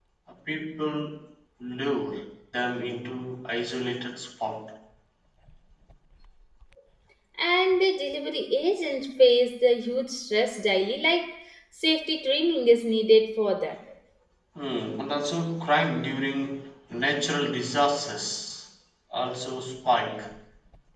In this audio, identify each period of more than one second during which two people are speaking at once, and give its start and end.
none

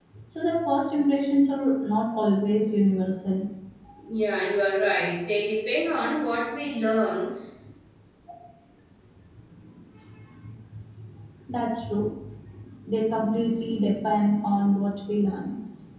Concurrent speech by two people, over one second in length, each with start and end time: none

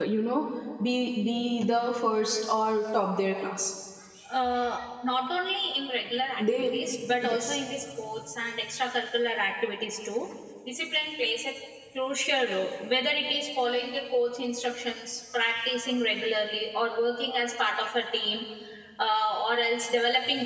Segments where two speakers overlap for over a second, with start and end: none

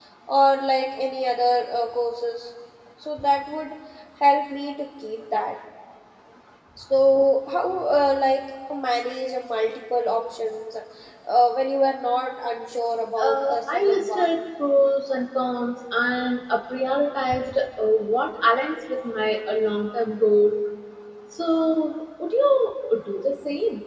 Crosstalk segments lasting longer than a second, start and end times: 13.2-14.4

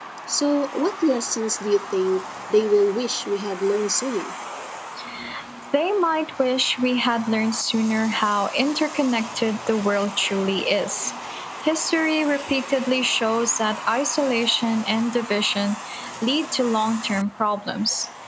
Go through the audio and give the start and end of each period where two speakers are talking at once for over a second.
none

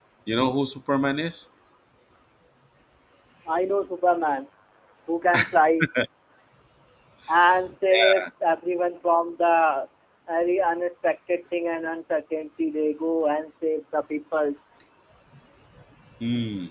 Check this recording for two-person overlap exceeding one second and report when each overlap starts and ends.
none

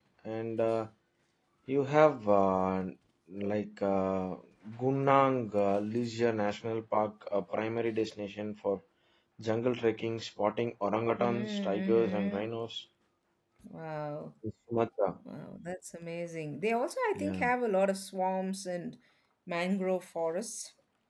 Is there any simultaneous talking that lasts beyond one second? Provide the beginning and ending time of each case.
11.2-12.5

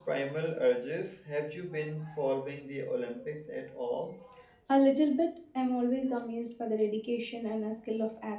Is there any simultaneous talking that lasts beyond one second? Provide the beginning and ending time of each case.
none

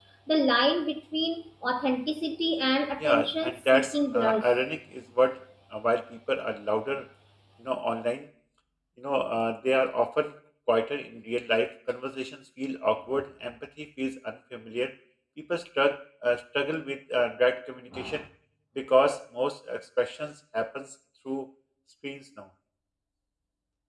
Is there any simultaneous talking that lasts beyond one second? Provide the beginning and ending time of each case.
3.0-4.4

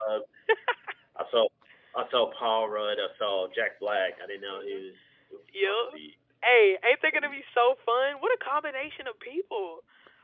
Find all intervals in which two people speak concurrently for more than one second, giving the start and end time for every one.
none

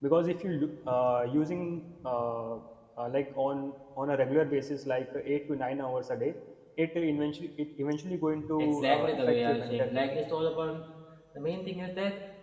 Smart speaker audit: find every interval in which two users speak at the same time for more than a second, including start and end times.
8.6-10.0

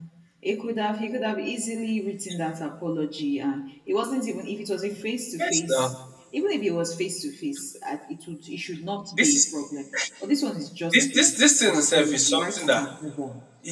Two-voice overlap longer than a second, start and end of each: 10.9-12.9

